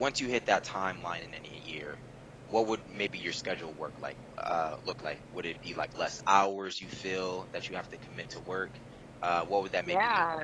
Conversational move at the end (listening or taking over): taking over